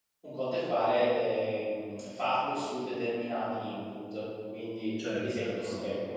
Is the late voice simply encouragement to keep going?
No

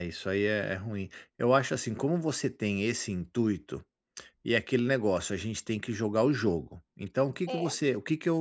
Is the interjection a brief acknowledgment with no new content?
Yes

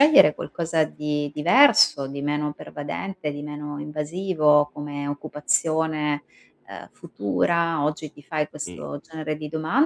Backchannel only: Yes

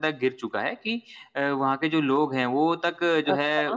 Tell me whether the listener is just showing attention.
Yes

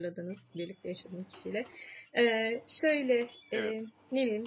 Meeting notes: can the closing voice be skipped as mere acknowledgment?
Yes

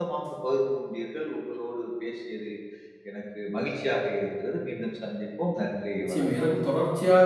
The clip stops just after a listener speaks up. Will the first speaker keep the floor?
No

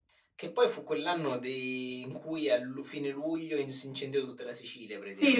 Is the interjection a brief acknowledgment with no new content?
No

